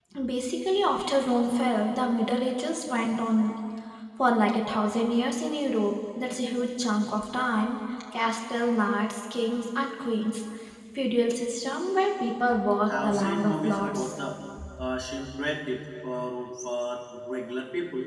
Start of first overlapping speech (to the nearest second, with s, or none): 13 s